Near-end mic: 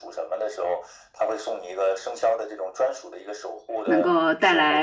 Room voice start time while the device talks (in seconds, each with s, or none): 3.8 s